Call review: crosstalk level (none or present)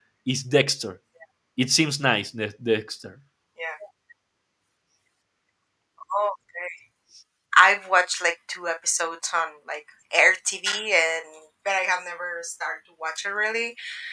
none